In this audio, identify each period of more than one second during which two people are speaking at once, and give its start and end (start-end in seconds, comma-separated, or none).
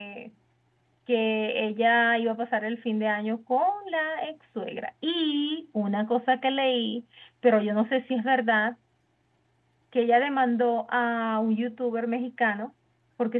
none